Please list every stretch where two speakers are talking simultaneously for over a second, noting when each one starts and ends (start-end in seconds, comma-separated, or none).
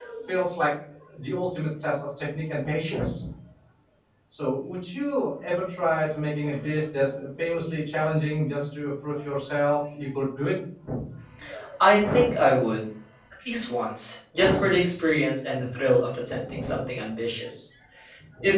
none